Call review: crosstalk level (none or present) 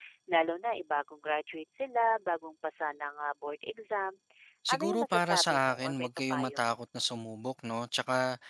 present